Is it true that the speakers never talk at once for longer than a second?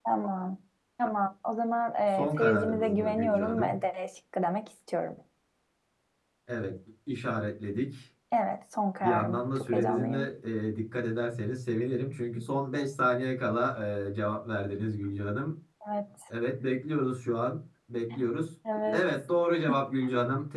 No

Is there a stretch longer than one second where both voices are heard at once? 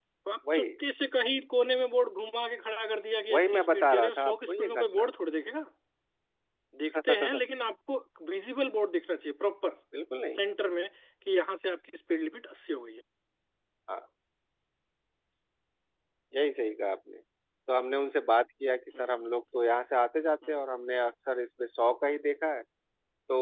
Yes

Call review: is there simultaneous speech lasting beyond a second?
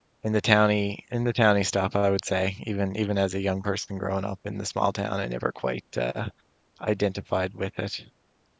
No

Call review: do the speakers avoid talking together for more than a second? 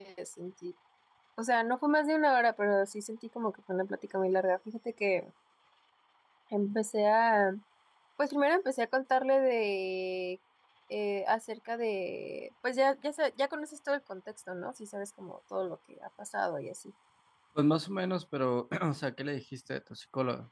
Yes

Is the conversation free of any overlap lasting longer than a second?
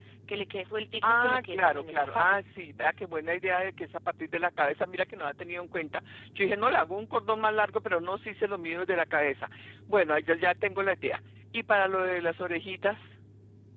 No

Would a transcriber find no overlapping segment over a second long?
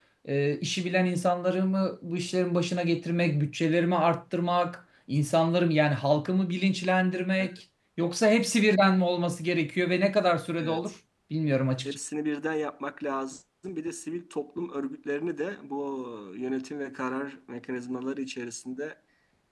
Yes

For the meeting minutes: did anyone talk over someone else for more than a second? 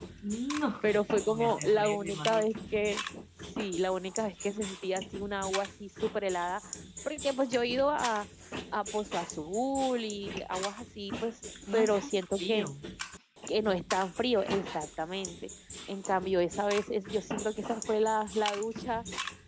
Yes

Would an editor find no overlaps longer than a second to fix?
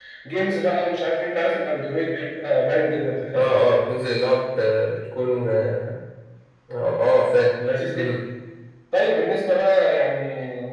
Yes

